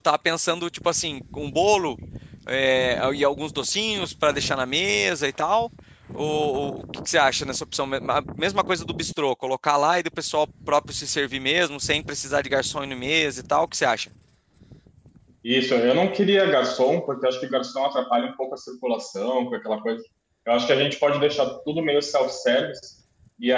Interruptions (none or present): none